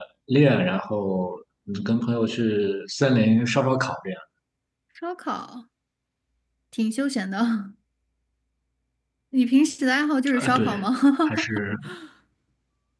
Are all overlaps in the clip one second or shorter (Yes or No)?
Yes